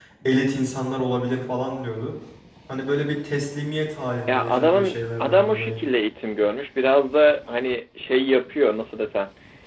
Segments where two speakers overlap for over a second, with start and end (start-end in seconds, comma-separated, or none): 4.3-5.8